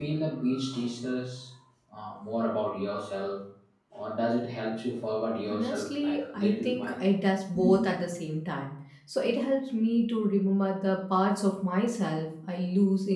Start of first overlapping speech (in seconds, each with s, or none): 5.5 s